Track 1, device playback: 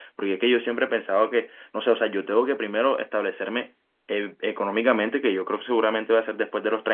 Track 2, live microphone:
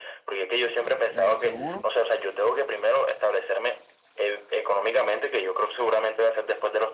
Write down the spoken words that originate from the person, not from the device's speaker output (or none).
eh, seguro